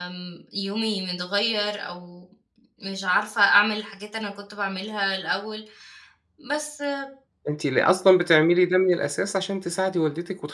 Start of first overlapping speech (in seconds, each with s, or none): none